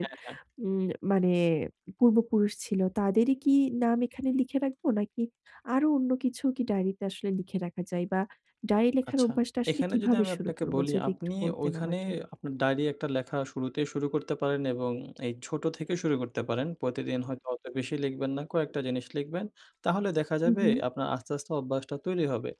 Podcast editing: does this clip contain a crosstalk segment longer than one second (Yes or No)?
Yes